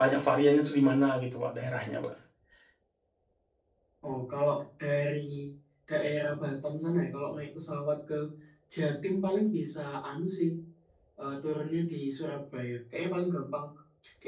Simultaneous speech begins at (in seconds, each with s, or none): none